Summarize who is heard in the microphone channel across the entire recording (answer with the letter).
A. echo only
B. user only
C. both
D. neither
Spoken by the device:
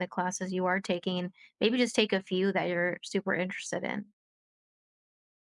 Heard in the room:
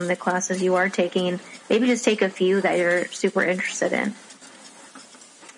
A